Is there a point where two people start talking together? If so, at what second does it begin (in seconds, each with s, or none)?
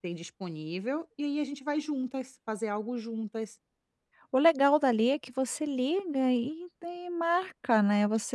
none